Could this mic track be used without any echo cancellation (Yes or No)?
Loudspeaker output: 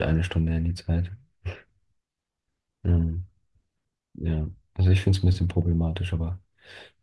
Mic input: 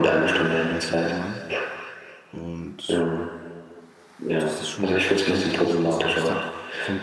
No